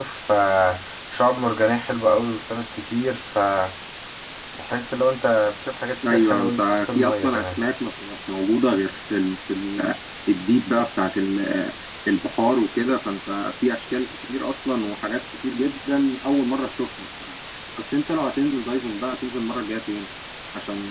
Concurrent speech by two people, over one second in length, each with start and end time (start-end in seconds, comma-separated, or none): 6.1-7.6